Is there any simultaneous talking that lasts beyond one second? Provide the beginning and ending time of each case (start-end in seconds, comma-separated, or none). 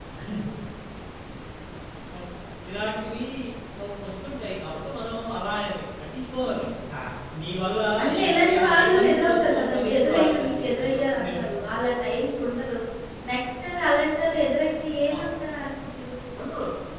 8.2-11.4